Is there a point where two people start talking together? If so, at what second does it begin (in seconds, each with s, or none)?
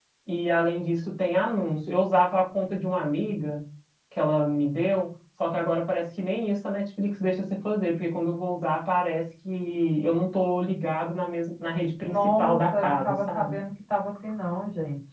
12.0 s